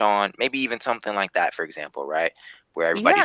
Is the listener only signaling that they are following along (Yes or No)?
No